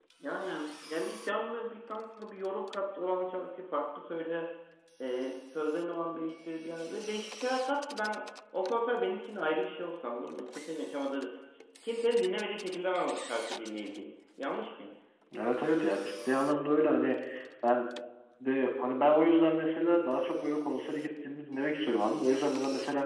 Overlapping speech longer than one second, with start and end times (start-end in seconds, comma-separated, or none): none